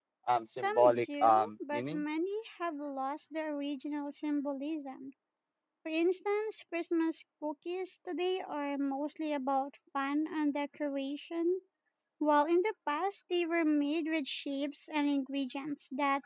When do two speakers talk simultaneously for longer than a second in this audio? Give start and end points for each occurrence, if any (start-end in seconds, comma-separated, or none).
0.6-2.0